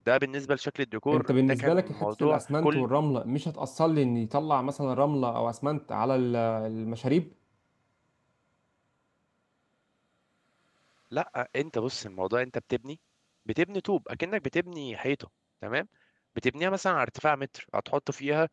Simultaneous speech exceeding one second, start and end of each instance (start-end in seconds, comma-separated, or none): 1.1-2.9